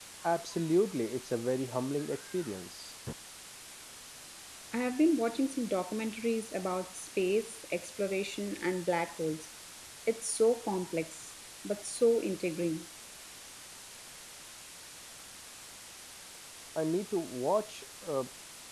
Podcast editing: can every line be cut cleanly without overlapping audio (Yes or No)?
Yes